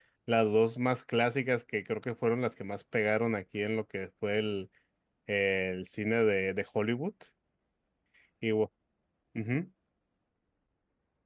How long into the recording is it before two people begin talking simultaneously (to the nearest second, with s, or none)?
none